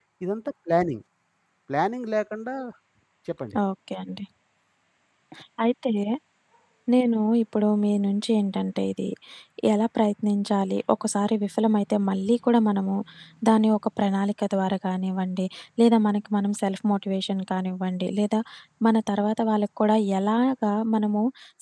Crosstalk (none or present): none